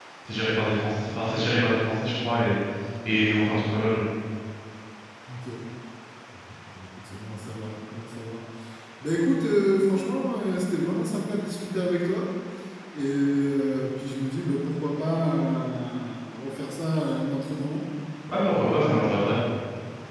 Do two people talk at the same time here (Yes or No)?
No